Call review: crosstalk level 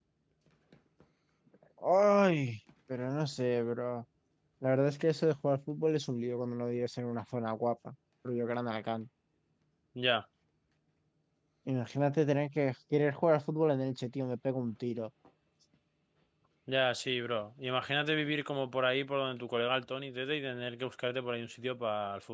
none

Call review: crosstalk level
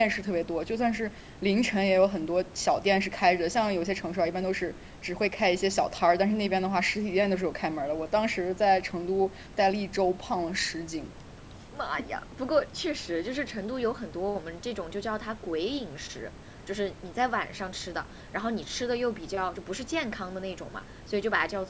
none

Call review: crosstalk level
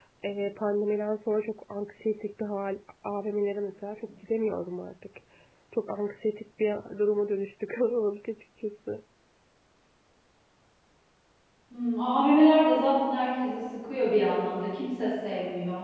none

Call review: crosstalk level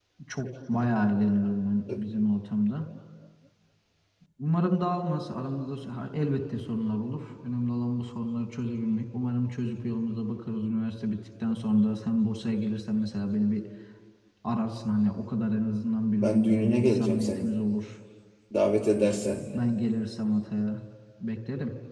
present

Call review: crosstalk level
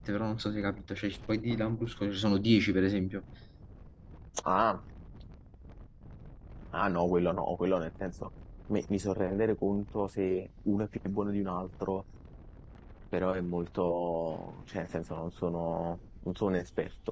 none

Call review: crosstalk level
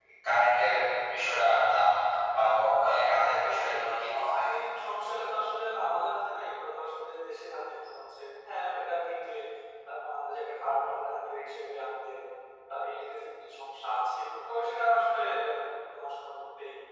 present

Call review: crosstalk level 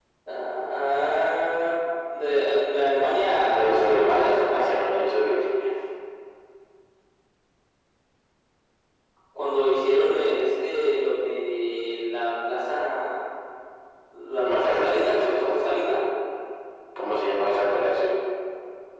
present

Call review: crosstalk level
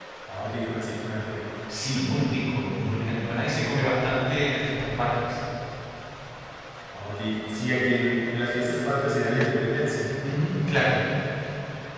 none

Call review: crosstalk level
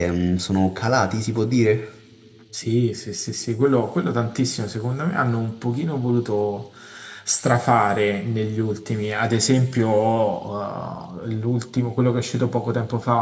none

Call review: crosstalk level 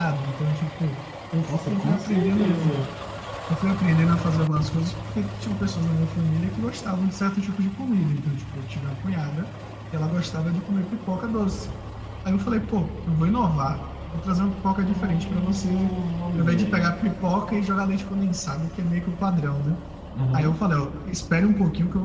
present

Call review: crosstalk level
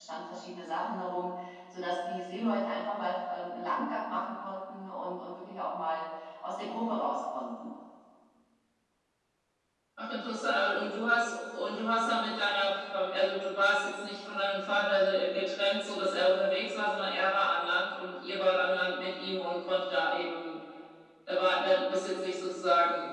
none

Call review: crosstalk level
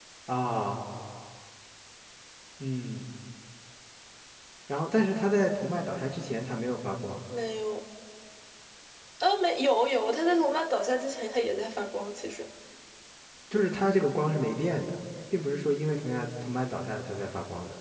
none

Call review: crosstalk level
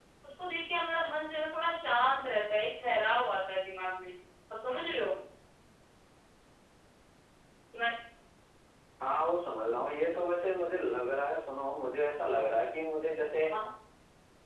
none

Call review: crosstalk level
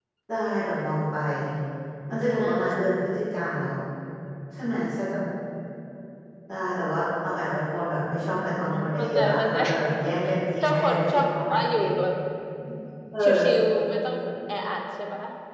present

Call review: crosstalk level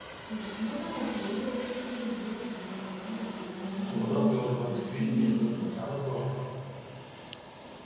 present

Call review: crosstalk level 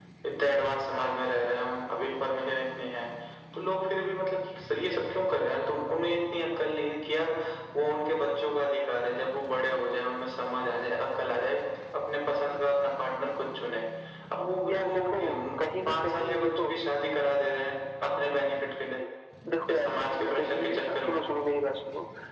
present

